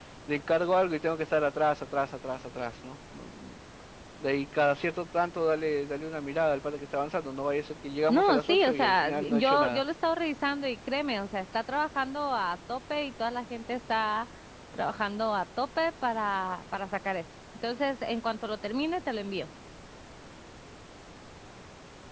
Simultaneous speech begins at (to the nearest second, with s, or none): 8 s